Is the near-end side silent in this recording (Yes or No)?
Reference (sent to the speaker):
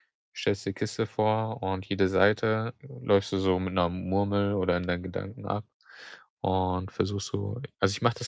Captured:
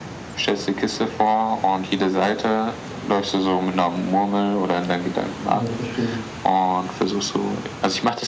No